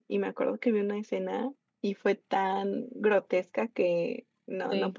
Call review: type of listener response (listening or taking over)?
listening